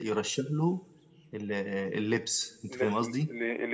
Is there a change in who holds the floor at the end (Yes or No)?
Yes